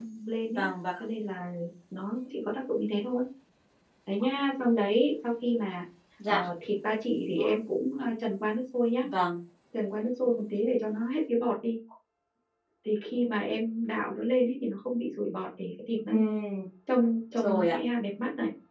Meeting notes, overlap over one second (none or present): none